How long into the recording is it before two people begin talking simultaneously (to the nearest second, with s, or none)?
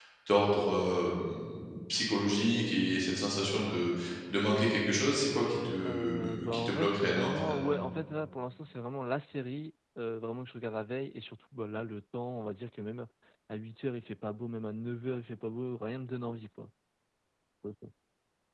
6 s